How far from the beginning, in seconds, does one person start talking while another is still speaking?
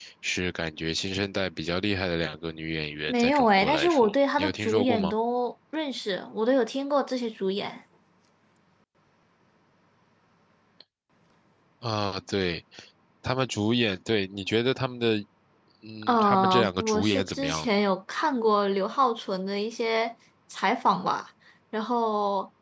3.1 s

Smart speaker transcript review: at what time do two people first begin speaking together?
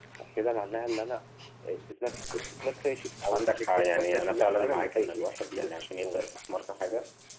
3.3 s

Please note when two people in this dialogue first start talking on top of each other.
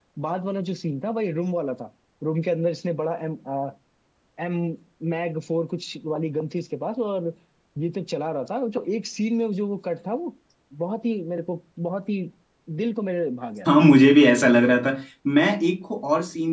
none

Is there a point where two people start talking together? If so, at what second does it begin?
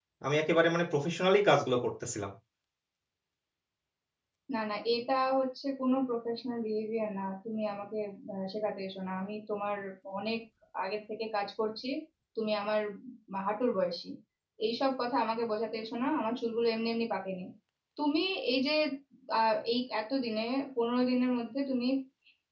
none

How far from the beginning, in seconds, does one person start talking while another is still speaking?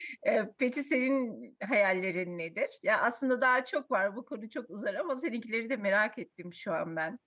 none

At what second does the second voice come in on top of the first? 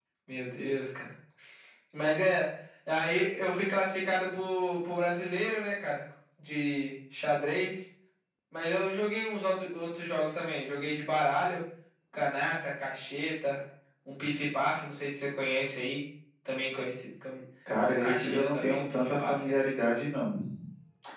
17.7 s

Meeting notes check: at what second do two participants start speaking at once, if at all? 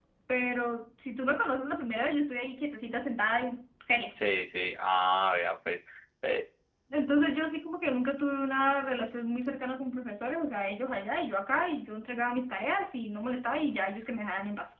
none

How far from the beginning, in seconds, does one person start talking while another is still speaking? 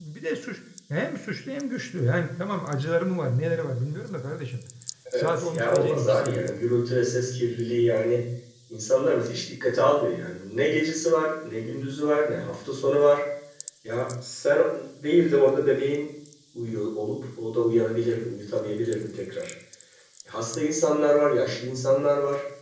5.1 s

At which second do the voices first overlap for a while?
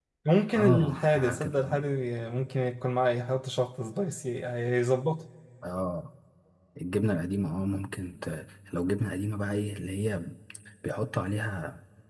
0.6 s

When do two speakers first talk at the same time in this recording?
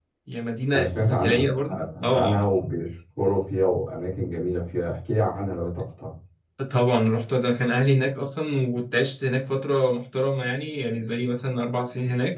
0.7 s

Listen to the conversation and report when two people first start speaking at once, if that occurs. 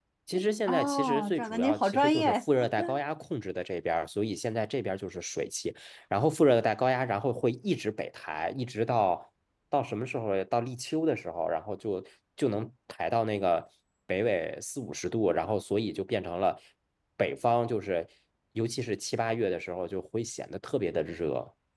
0.7 s

